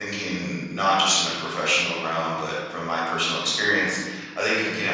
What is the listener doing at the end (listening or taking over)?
listening